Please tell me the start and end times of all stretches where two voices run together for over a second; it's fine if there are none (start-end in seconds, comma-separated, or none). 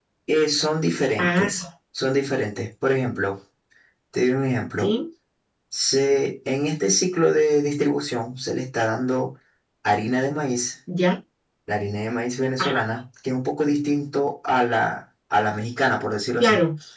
none